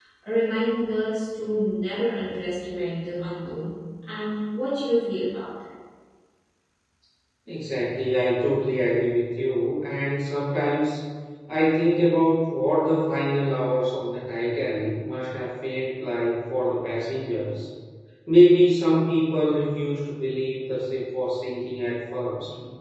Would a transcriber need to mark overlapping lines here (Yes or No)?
No